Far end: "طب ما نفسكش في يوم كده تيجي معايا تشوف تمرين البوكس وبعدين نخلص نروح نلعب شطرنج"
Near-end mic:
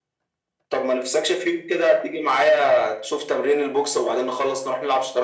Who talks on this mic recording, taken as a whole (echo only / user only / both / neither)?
echo only